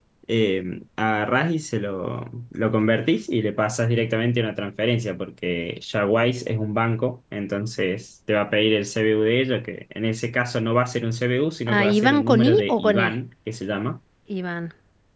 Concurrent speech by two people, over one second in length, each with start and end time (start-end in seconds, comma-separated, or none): 11.7-13.1